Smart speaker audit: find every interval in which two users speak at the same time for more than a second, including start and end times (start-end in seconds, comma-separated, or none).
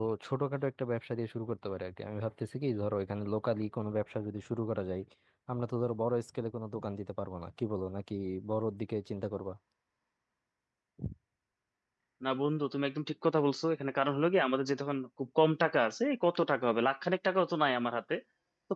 none